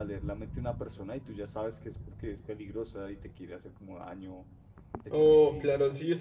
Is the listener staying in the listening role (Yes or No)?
No